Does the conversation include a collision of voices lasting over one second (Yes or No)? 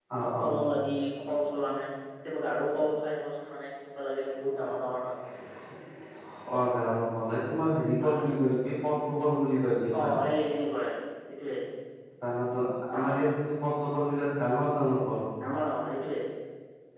No